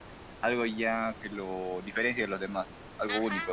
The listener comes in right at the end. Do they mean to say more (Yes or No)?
Yes